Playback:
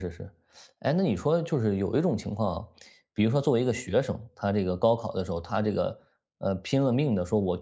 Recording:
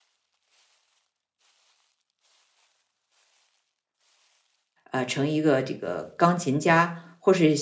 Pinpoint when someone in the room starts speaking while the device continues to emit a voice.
4.9 s

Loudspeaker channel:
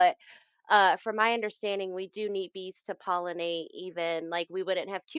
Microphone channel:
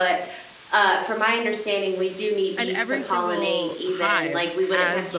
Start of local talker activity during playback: 2.6 s

